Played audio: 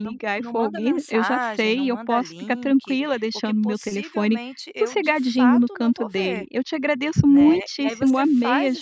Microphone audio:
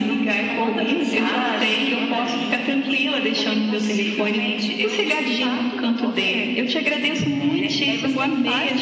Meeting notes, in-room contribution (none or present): none